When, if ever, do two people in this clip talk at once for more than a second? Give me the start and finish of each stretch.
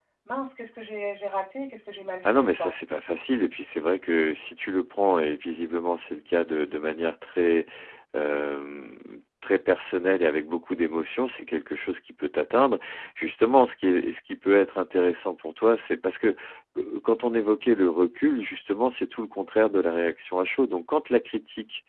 none

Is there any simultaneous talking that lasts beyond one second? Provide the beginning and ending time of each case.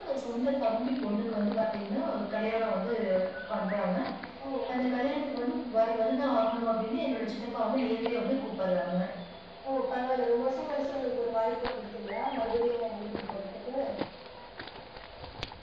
none

